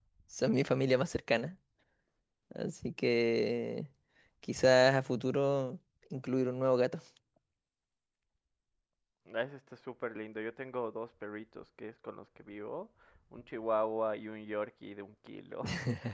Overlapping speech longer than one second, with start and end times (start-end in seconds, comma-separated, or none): none